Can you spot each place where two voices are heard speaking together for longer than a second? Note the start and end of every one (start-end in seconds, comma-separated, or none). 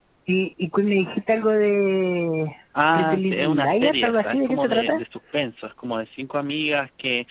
2.9-5.0